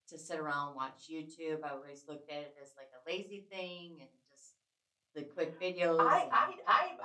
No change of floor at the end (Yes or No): No